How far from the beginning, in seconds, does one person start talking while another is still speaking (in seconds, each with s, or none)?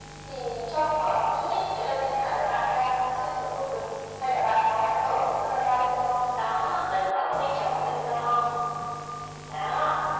none